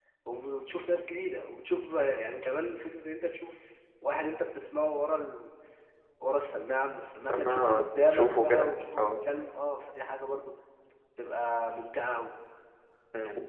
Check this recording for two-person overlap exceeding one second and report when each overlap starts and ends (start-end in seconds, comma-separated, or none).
7.2-9.1